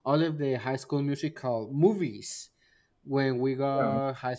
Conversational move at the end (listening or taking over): listening